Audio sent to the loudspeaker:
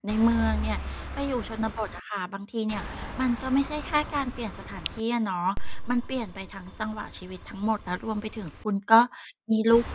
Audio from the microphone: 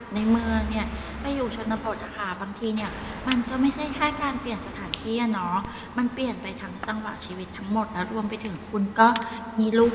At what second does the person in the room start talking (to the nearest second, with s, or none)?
none